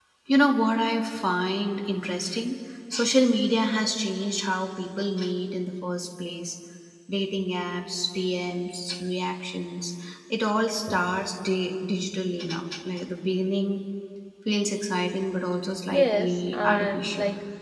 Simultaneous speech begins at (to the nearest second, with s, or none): 16 s